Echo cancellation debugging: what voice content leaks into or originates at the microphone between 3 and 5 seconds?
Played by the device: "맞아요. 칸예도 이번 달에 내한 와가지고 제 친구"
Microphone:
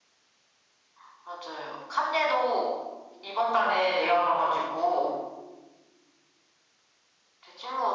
echo only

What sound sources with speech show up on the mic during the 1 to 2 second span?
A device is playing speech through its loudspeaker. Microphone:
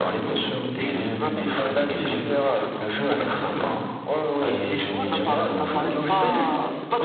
both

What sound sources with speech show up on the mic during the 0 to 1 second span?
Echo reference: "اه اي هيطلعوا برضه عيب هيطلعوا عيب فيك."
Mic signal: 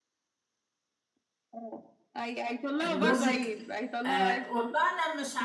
neither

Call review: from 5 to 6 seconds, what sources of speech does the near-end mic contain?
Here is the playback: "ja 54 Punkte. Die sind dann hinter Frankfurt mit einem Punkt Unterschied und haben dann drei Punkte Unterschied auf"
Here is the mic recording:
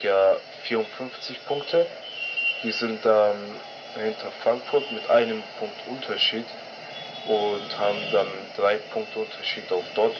echo only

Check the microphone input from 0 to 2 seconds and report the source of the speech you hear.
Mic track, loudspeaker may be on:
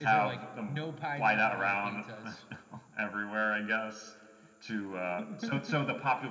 echo only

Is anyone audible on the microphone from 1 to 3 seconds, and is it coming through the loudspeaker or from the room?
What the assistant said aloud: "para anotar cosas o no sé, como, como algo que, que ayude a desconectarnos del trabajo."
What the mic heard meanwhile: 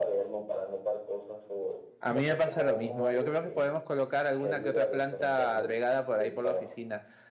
both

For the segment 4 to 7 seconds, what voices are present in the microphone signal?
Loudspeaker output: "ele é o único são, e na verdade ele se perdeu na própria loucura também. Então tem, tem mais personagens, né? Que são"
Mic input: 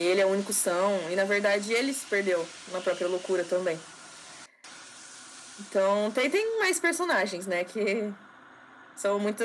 echo only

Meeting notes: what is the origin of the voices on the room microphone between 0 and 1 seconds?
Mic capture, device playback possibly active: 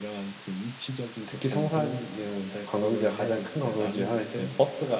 echo only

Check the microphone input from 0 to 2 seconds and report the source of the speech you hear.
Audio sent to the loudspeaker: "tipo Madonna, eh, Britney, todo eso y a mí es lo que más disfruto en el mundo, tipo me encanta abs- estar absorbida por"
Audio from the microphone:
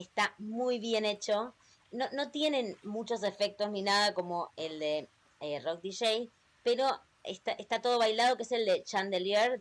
user only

